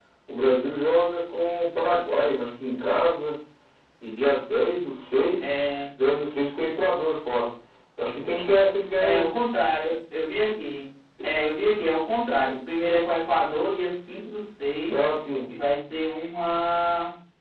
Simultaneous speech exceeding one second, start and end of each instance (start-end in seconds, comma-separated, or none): none